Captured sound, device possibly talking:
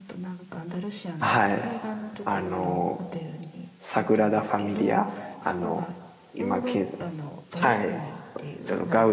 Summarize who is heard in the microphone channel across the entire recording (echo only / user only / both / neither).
both